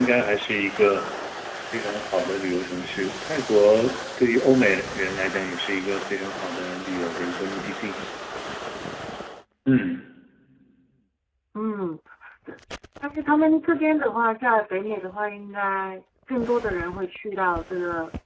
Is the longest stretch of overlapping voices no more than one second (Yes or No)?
Yes